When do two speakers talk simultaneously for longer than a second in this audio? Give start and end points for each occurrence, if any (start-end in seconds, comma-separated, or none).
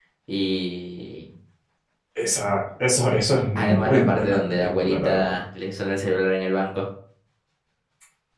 3.6-5.3